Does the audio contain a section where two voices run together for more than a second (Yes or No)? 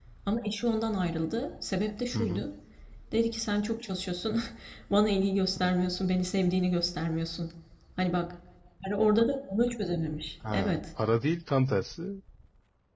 No